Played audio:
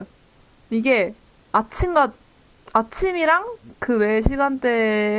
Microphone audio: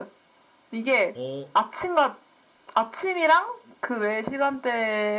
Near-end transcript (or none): 어,